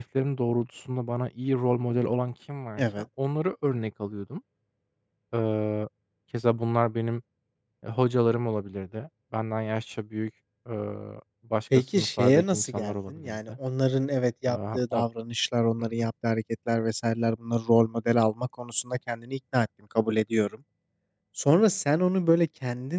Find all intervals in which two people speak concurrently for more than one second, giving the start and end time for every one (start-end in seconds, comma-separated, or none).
11.9-13.5